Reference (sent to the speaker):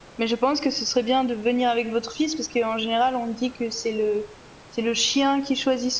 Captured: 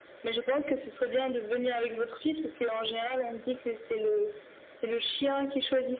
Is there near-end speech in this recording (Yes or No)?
No